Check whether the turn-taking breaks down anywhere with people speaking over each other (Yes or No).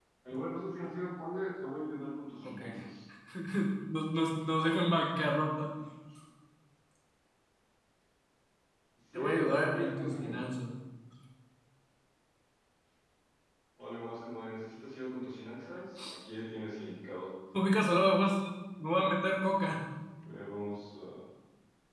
Yes